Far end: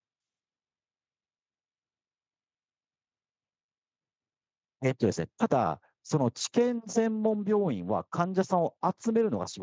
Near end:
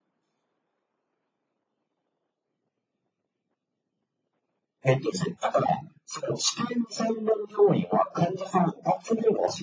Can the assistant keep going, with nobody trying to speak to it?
Yes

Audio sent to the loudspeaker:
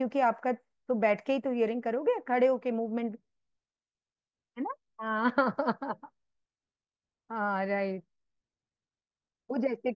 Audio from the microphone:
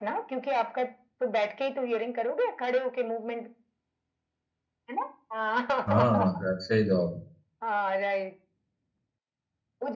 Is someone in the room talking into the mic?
Yes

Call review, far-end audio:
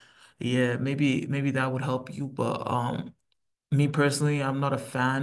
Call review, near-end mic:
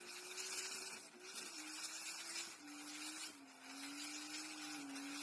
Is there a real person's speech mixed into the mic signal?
No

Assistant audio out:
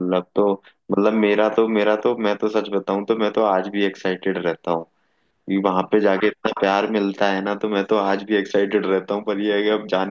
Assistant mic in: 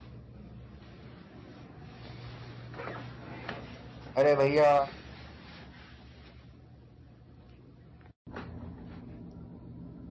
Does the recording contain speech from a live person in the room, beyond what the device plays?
Yes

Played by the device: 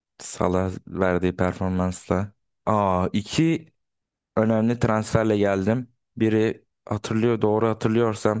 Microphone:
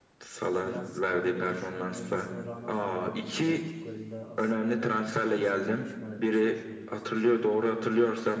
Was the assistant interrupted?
Yes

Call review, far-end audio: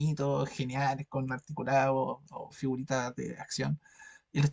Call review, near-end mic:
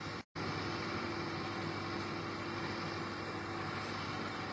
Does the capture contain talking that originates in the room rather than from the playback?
No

